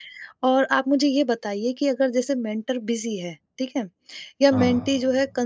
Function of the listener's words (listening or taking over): listening